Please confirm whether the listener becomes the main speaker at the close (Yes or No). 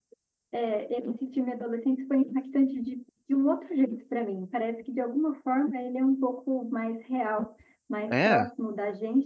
No